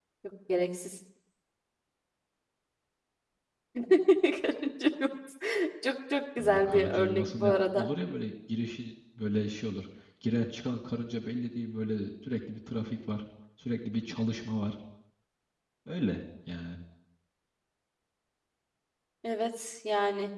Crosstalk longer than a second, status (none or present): present